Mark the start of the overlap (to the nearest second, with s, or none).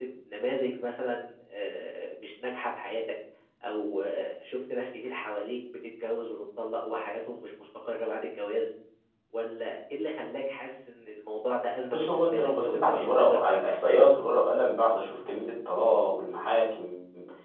12 s